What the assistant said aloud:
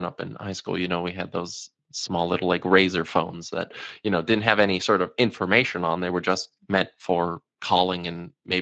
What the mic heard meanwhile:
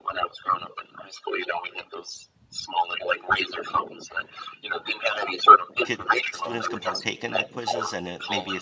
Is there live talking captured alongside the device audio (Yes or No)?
Yes